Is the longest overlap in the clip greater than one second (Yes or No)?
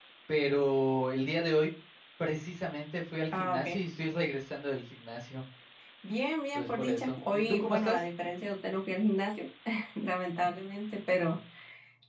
Yes